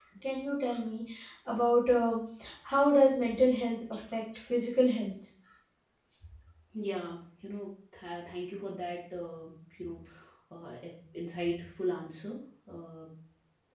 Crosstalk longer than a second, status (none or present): none